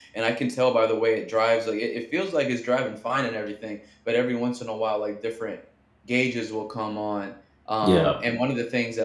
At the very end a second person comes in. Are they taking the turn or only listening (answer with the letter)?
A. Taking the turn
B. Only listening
B